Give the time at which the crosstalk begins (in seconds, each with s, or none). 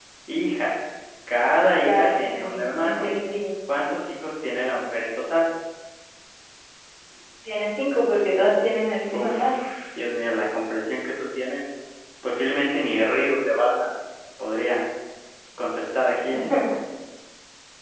1.8 s